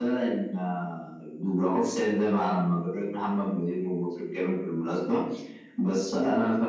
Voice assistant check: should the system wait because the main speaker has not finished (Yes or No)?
Yes